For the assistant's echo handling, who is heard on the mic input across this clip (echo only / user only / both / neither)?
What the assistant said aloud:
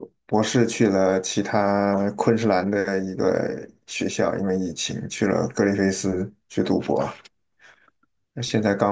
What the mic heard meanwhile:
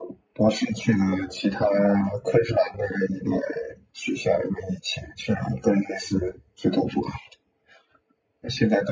echo only